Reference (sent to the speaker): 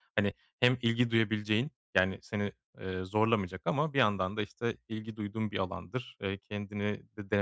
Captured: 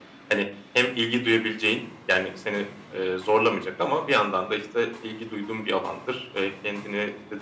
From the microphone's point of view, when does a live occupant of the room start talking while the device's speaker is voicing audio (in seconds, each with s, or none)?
none